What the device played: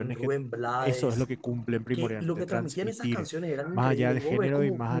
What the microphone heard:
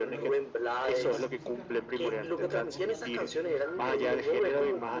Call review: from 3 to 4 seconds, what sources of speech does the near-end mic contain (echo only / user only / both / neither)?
both